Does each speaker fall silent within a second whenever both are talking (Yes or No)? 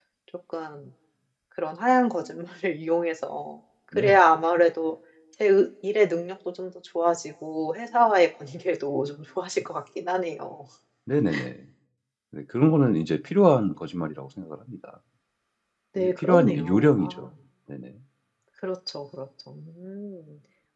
No